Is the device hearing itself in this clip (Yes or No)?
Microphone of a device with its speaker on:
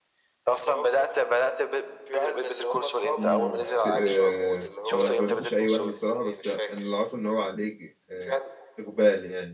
Yes